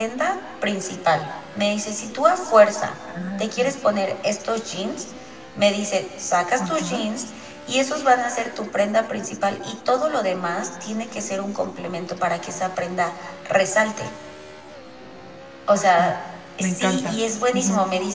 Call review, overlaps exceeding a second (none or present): none